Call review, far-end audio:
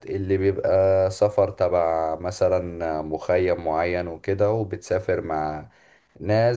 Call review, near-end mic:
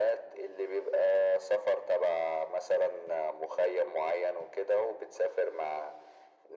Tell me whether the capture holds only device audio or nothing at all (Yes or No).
Yes